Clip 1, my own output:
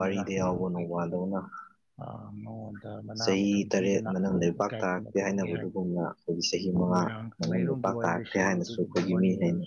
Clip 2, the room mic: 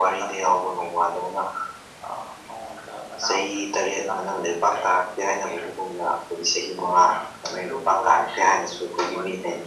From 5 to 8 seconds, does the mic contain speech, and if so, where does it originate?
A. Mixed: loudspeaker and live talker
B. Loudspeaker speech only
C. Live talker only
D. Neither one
B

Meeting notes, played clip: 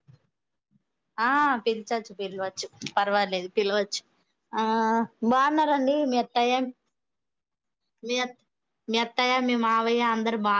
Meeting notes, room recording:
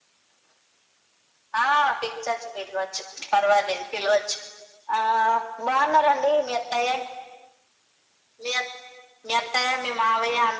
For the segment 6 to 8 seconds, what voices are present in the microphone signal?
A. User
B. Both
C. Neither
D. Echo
D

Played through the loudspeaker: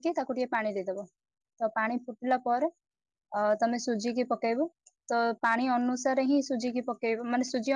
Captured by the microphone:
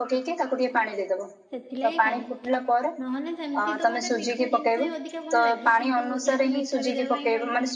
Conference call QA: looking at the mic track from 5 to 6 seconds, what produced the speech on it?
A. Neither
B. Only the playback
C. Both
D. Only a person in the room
C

